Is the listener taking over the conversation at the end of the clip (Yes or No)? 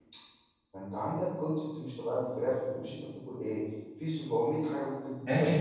Yes